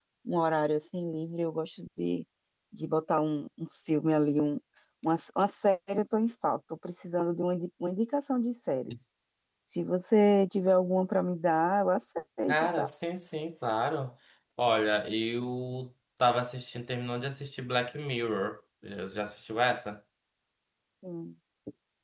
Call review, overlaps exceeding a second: none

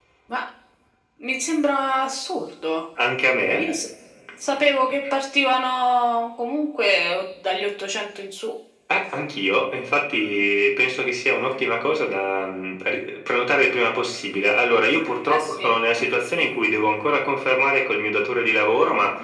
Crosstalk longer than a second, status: none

